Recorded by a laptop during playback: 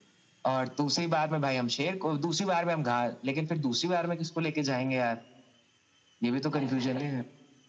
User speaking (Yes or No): Yes